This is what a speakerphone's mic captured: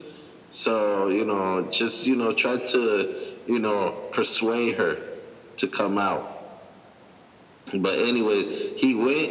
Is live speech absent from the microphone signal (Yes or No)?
Yes